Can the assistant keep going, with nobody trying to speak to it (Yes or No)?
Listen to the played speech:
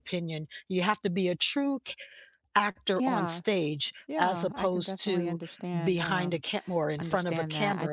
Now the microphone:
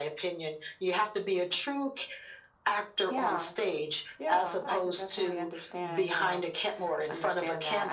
Yes